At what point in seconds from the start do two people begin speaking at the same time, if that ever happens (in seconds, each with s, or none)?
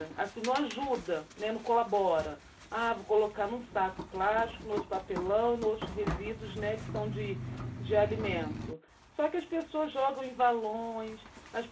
none